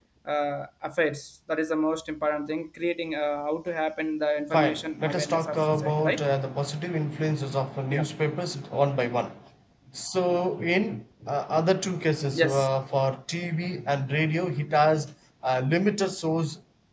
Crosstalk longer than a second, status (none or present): present